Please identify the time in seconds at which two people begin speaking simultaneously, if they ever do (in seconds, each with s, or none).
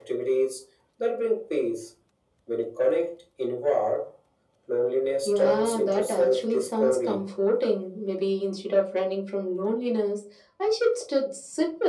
5.2 s